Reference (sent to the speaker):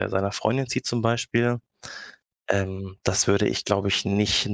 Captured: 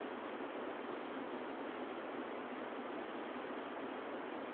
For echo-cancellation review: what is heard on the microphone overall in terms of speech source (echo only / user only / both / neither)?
neither